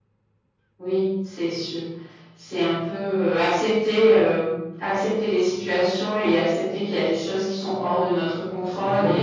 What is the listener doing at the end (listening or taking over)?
taking over